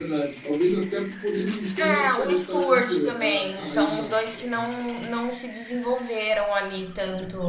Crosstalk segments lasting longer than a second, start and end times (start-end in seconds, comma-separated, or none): 1.8-4.0